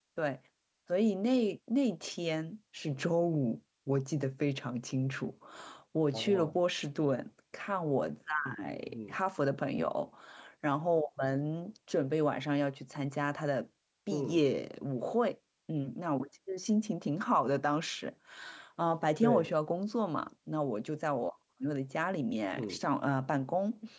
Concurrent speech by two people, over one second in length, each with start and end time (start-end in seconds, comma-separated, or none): none